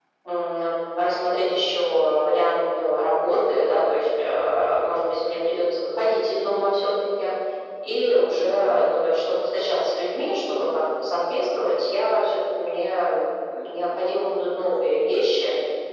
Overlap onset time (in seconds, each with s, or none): none